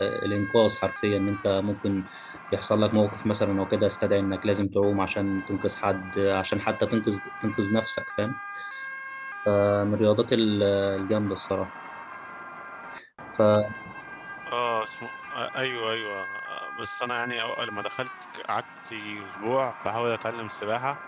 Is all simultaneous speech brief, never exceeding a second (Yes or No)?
Yes